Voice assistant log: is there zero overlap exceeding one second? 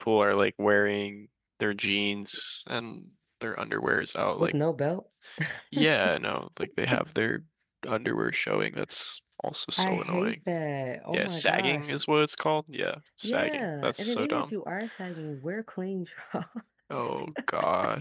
No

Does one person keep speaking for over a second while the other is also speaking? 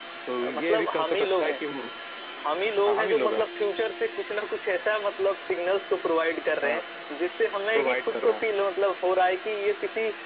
Yes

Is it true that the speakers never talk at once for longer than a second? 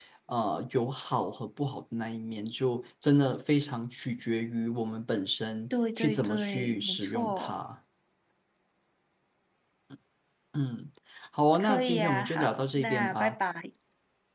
No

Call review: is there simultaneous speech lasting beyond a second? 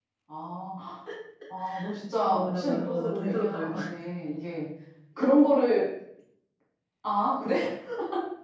Yes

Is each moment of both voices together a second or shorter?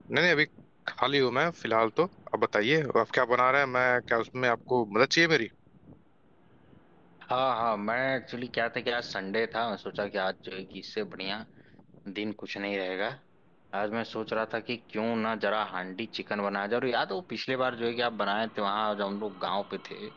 Yes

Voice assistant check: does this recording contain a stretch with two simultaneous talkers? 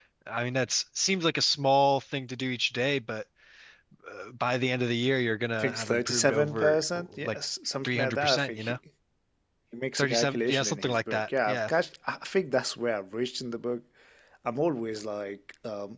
Yes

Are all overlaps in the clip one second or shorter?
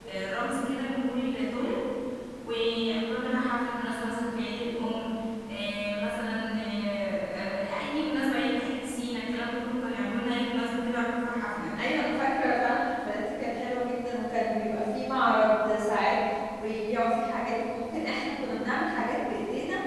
Yes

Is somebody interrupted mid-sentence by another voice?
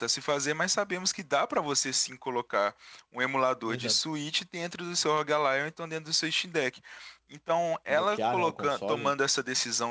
Yes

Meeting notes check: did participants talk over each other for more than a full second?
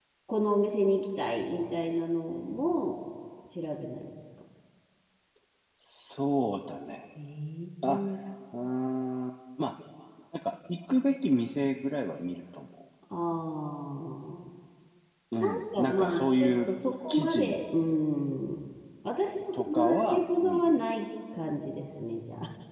Yes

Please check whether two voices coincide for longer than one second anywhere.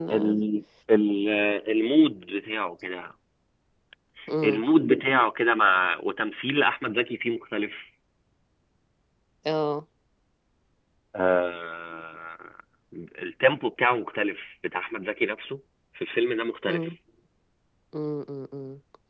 No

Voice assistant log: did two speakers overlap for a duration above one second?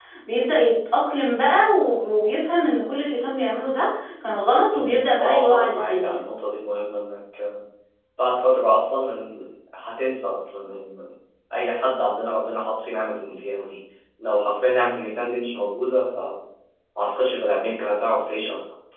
Yes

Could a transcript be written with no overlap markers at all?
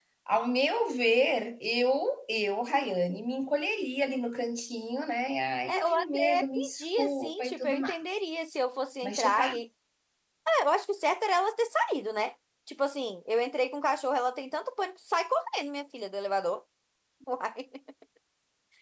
No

